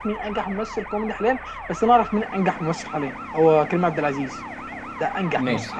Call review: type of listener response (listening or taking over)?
taking over